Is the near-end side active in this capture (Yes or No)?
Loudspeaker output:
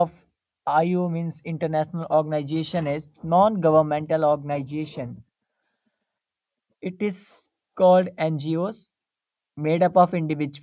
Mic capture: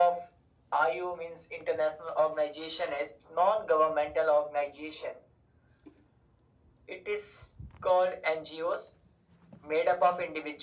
No